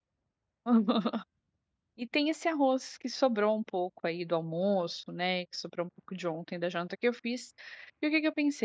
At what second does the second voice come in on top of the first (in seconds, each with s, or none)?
none